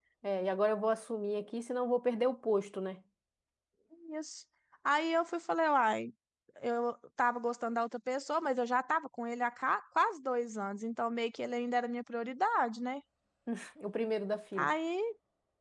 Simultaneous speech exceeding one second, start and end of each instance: none

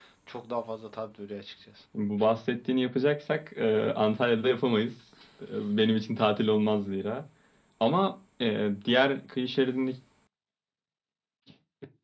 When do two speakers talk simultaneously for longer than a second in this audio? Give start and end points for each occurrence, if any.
none

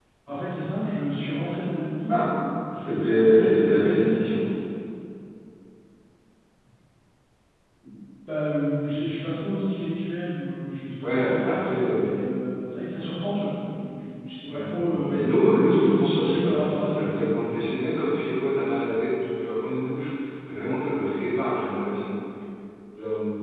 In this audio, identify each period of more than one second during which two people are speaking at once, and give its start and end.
2.8-4.2, 11.0-12.2, 14.5-17.2

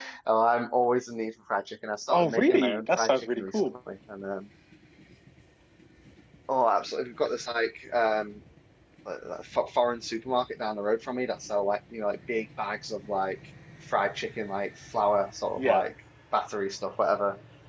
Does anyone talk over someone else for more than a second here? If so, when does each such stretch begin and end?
2.1-3.7

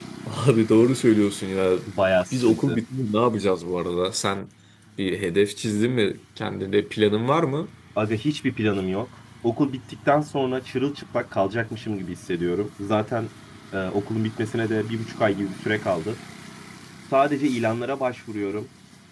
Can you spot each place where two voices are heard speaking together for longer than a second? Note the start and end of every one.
none

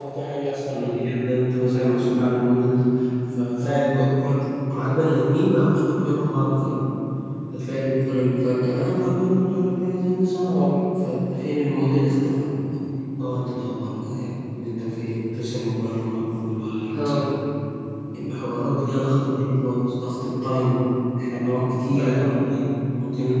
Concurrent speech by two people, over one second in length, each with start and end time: none

